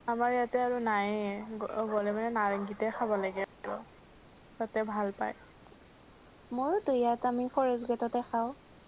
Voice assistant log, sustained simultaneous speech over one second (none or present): none